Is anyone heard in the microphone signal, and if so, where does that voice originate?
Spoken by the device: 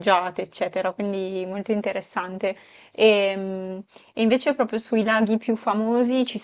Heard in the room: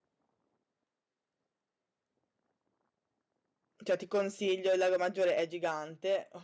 user only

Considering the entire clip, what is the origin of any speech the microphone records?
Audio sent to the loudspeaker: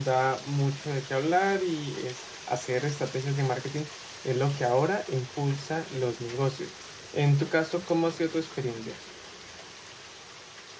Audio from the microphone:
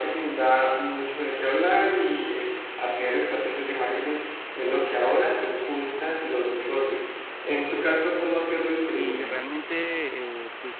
both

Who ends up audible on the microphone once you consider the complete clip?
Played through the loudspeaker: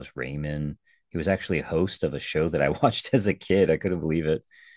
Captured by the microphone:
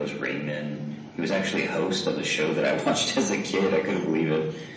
echo only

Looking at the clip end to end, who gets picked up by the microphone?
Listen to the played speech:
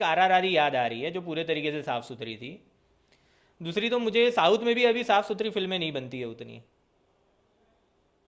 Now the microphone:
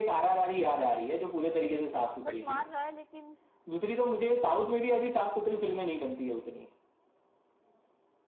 both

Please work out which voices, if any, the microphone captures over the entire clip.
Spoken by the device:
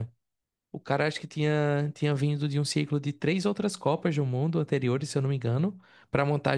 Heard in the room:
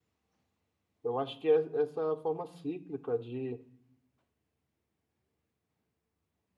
user only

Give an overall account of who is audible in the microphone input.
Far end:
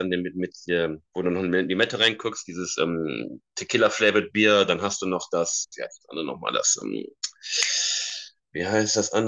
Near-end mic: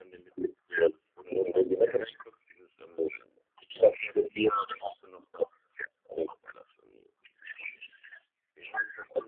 echo only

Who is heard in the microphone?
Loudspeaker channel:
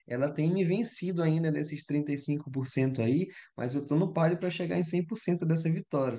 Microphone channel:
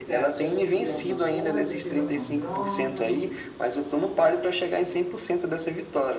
both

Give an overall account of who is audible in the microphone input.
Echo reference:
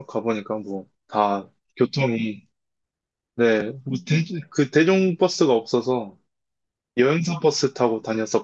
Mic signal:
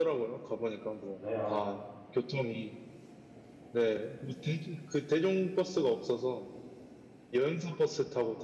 both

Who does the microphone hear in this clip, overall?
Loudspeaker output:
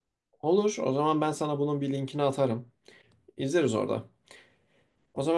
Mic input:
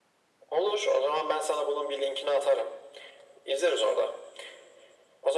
echo only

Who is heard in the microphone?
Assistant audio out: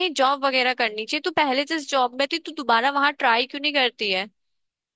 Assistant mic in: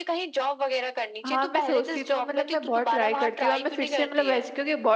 both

